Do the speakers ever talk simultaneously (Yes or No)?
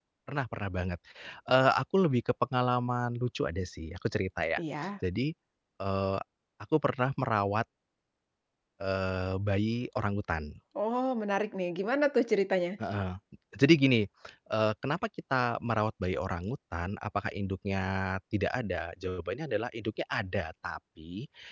No